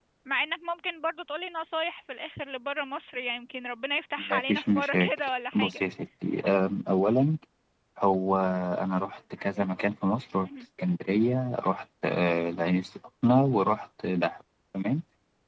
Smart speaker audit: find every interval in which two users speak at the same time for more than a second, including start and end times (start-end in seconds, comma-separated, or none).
4.3-5.8